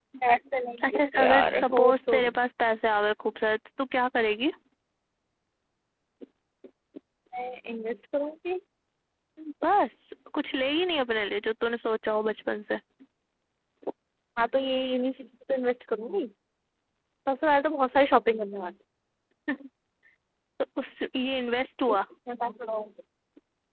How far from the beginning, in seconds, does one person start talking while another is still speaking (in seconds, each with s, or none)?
0.9 s